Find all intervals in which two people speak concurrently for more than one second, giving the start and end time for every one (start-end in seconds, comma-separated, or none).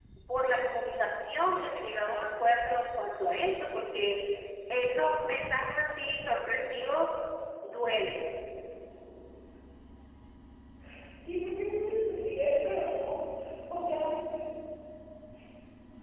none